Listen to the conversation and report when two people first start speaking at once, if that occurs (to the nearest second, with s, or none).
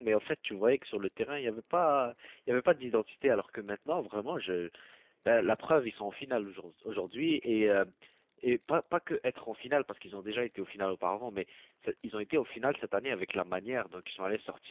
none